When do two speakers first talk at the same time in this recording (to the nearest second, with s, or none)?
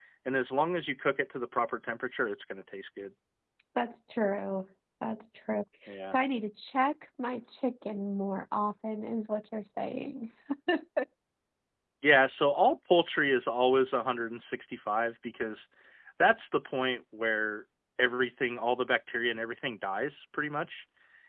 none